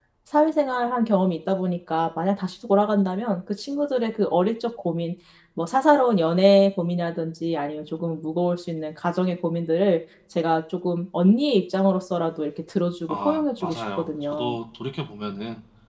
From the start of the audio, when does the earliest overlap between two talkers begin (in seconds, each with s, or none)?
13.1 s